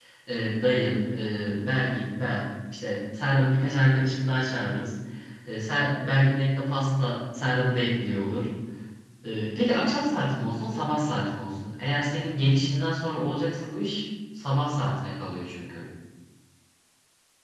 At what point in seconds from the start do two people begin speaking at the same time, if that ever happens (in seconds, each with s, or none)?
none